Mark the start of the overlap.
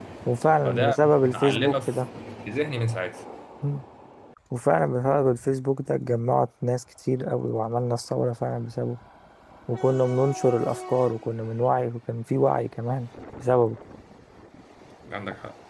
1 s

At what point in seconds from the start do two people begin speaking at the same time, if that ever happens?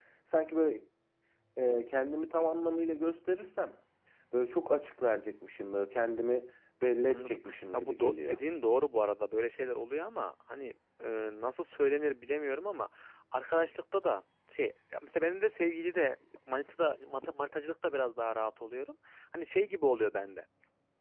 7 s

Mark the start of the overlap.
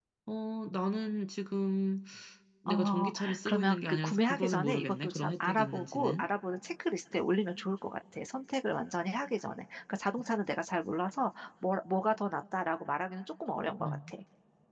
3 s

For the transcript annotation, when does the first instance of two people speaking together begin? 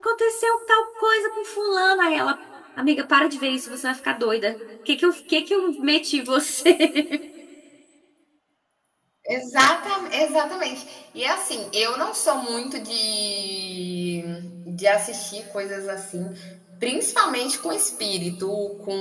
none

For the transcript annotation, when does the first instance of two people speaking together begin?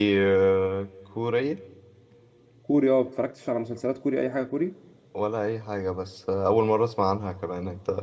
none

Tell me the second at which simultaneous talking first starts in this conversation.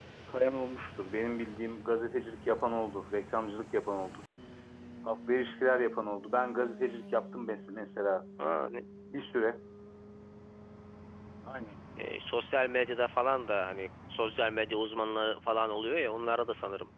none

